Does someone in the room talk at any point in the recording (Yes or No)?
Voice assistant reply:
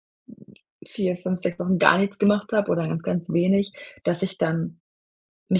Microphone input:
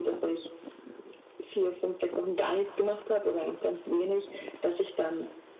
No